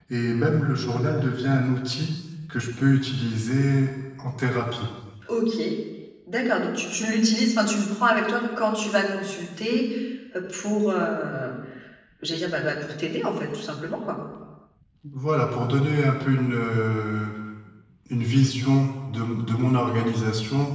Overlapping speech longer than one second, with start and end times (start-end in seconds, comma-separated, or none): none